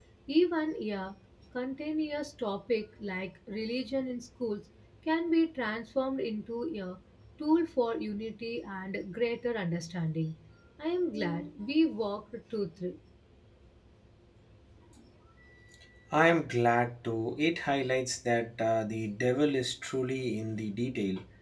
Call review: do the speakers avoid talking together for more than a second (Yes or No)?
Yes